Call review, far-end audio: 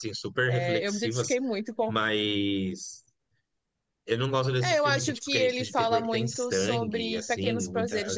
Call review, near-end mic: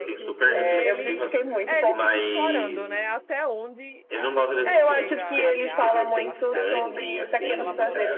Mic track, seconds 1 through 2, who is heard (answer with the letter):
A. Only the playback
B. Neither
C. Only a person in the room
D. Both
D